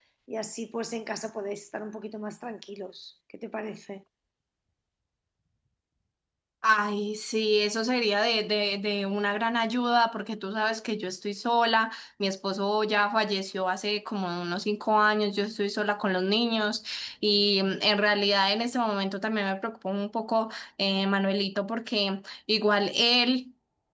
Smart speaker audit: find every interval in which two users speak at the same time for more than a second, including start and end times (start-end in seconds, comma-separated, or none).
none